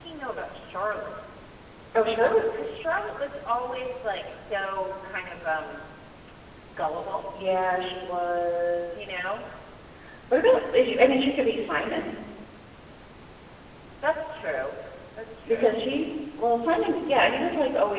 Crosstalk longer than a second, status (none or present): none